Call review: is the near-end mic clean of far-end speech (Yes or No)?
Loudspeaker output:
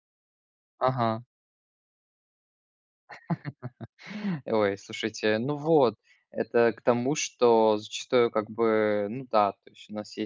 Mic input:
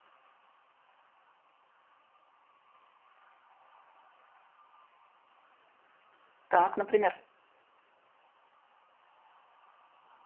Yes